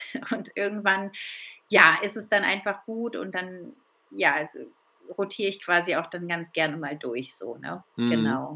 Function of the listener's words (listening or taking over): taking over